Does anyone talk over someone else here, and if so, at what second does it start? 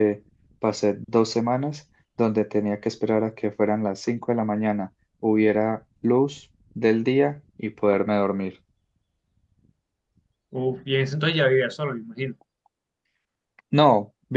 none

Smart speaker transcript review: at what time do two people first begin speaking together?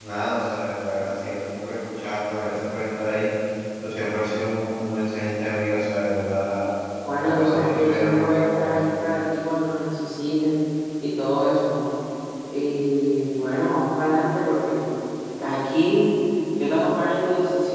7.2 s

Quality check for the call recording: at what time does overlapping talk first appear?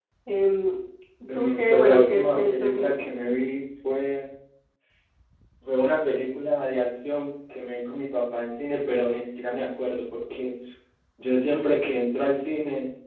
1.3 s

